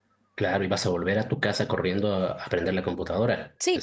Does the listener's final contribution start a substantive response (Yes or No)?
Yes